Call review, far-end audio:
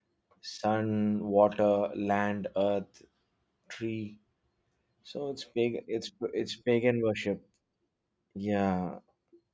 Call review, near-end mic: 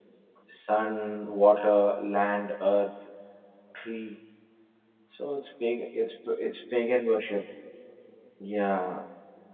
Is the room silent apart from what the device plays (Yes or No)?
Yes